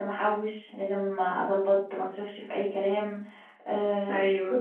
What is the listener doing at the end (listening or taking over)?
listening